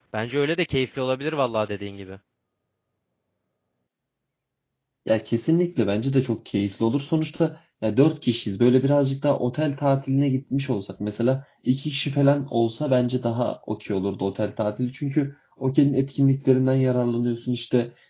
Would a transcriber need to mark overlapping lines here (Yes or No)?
No